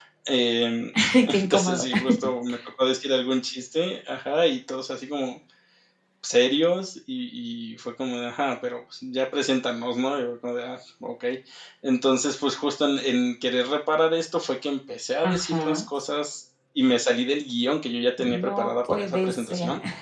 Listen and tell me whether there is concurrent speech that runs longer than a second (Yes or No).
Yes